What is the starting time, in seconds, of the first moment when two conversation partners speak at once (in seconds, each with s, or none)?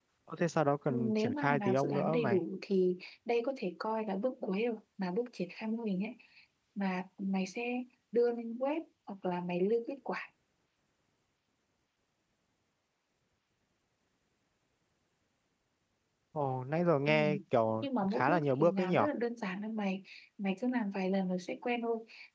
0.9 s